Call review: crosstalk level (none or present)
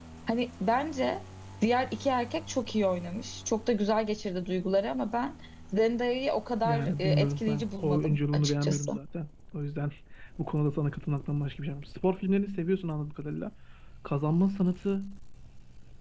present